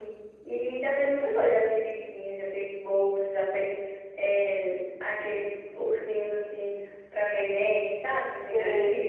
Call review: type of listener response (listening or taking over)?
taking over